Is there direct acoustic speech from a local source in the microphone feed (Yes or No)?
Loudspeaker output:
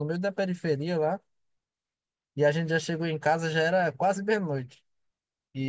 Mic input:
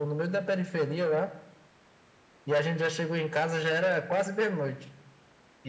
No